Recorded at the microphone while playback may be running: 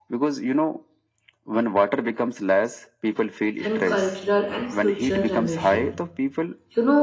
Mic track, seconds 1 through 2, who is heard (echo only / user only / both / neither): echo only